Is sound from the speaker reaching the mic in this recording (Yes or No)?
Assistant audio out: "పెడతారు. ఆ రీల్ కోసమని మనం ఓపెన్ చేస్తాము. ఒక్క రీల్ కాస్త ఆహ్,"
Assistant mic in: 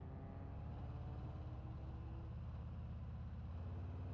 No